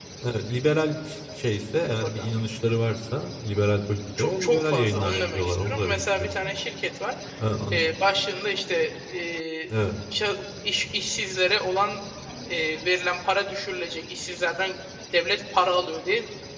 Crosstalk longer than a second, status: present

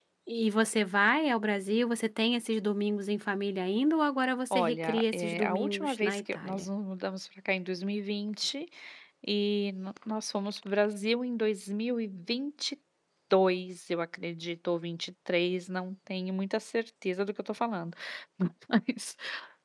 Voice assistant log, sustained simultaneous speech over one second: present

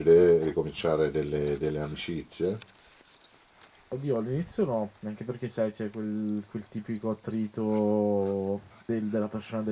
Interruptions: none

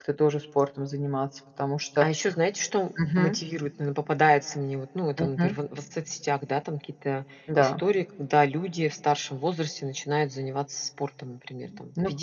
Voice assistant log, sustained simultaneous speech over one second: none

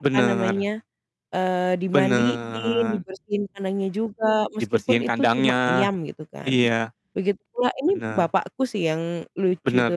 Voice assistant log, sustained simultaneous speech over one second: present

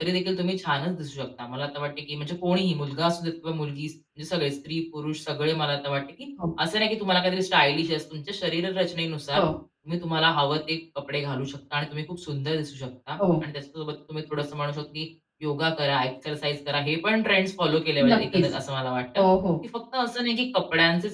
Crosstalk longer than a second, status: none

